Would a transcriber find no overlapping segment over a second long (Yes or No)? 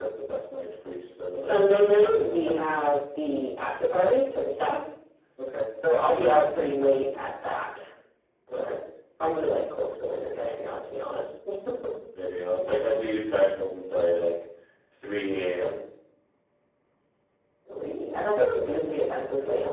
Yes